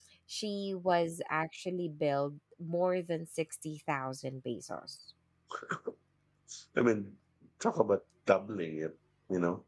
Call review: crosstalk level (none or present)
none